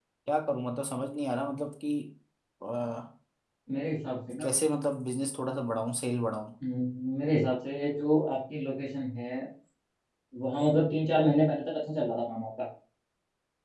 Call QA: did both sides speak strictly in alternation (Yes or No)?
Yes